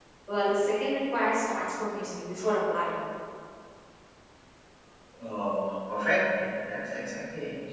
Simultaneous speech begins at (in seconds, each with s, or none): none